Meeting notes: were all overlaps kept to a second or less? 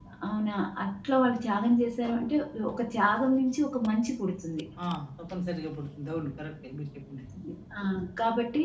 Yes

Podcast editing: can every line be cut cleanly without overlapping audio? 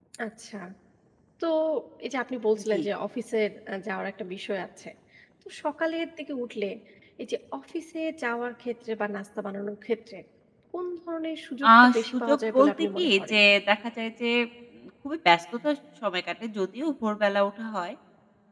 No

